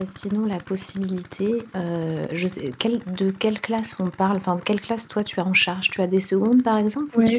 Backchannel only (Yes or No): No